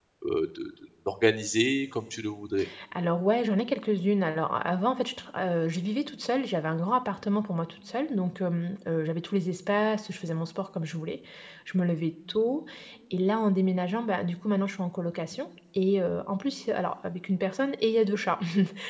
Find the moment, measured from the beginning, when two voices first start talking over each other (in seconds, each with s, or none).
none